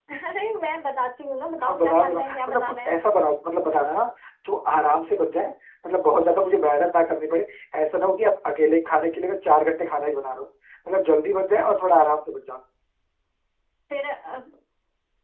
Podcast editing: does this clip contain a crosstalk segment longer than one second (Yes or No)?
Yes